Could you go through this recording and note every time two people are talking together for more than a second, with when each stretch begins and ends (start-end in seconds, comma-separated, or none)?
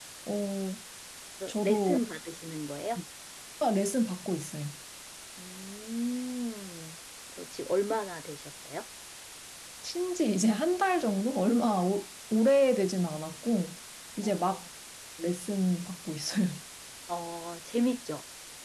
none